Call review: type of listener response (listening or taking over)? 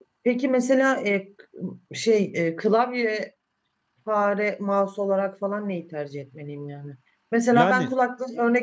listening